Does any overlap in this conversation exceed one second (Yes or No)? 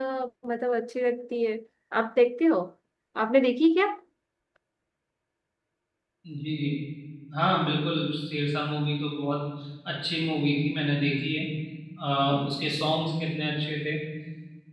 No